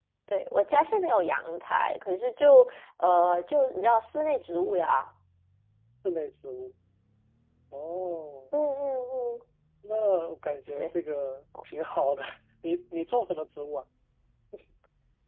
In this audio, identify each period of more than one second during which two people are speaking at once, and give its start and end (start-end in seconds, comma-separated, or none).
none